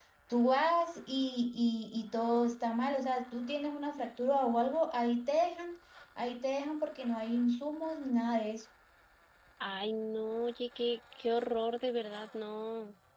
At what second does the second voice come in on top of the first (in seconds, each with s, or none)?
none